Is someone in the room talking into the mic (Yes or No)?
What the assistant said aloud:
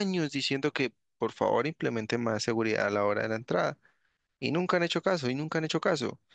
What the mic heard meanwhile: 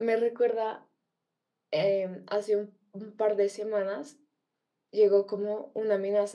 Yes